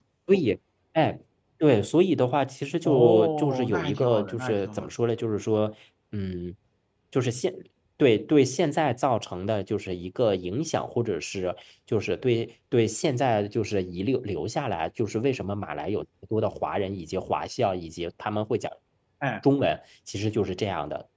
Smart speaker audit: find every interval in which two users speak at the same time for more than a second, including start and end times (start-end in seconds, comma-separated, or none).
2.8-4.9